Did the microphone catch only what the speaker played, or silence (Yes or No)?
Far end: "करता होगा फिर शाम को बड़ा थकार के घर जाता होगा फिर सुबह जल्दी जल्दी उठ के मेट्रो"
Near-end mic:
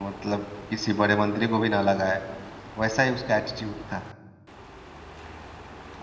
No